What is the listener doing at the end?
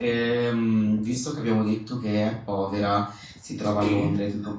listening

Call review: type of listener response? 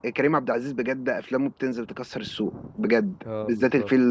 listening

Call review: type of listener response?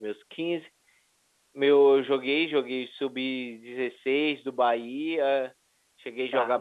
listening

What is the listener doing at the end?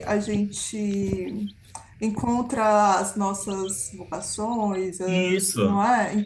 taking over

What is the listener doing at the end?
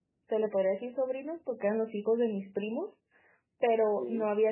listening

